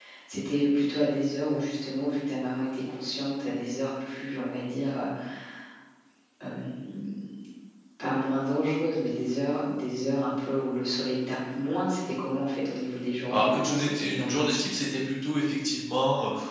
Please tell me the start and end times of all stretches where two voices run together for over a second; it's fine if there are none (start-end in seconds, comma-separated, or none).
13.3-14.7